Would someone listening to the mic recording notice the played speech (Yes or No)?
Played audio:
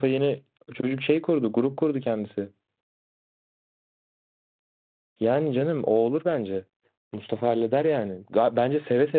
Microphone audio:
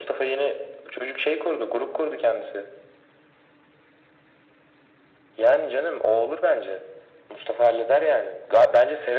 Yes